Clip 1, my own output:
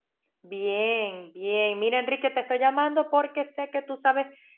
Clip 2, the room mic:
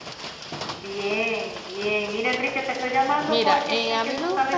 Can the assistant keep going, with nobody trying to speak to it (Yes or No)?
No